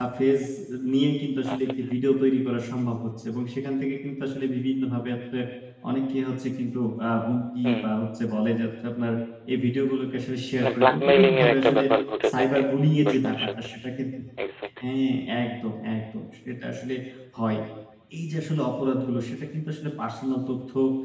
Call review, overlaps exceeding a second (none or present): present